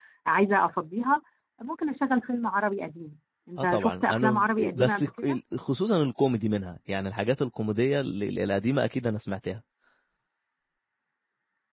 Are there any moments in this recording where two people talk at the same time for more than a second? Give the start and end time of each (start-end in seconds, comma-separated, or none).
3.6-5.4